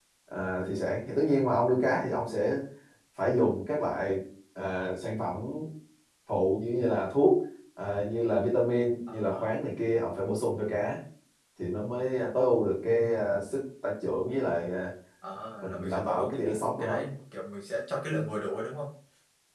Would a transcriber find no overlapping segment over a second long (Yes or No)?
No